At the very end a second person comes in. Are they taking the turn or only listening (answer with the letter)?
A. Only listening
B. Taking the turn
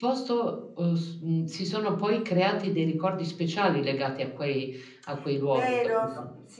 B